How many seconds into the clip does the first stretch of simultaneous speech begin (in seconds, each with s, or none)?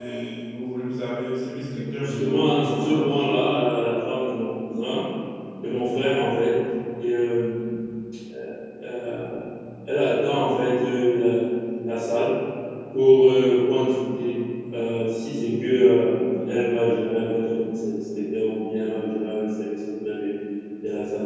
2.0 s